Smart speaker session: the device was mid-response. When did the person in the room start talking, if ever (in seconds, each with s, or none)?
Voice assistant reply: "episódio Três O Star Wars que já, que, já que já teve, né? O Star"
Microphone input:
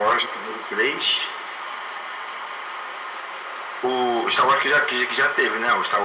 none